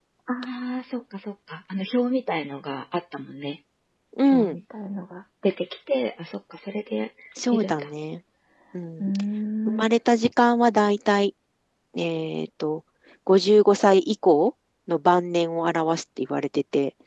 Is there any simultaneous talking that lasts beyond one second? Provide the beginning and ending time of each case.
none

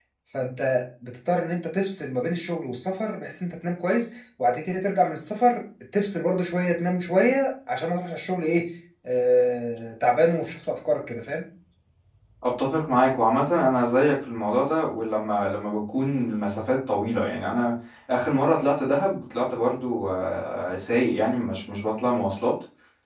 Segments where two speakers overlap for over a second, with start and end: none

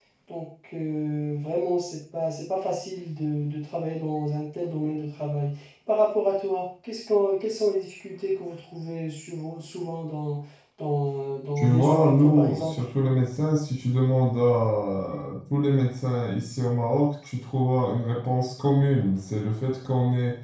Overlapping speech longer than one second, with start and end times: 11.6-12.8

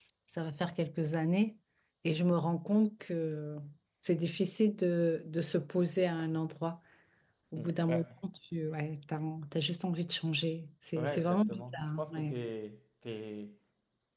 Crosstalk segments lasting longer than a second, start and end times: 11.0-12.4

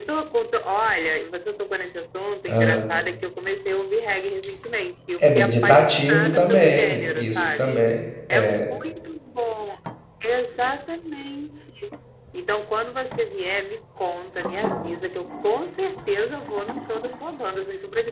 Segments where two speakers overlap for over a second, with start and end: 5.2-7.8

